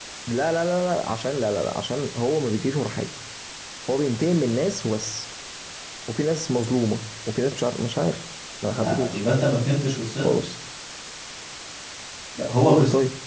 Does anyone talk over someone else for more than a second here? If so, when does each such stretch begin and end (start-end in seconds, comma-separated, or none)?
none